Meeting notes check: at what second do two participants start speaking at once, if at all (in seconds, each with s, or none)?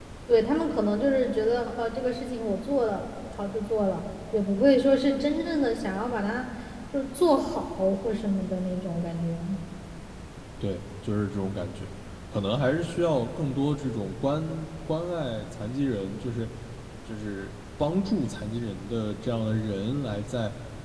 none